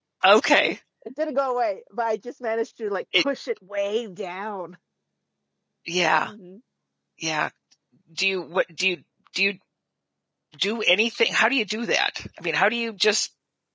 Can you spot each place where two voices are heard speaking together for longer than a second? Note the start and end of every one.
none

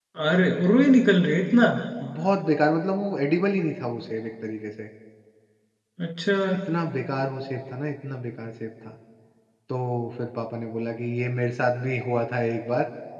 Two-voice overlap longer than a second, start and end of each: none

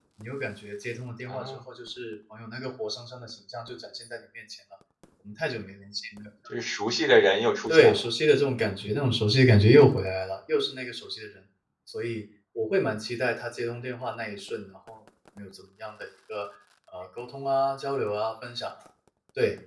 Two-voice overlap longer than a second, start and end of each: none

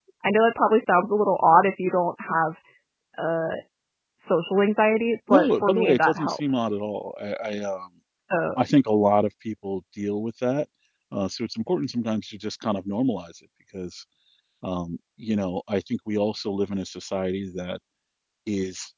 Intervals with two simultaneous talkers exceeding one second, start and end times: 5.3-6.7

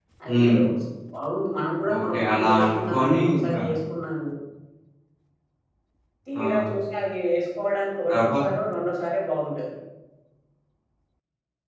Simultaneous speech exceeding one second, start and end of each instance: 1.9-3.6

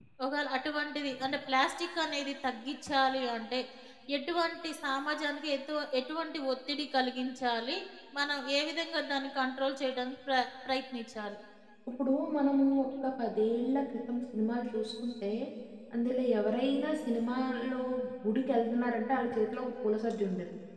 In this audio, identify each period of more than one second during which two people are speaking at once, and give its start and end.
none

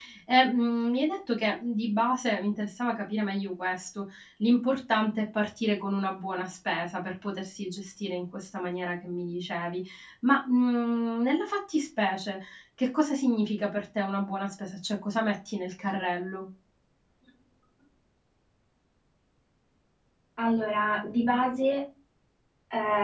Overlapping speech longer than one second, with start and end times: none

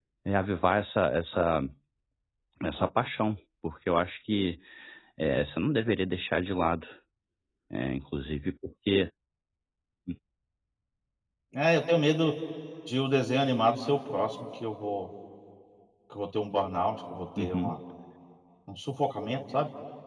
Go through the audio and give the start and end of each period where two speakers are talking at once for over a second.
none

